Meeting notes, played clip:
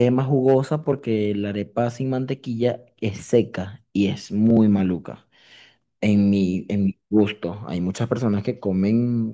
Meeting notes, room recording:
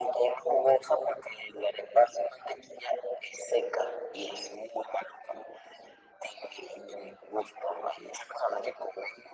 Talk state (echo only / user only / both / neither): echo only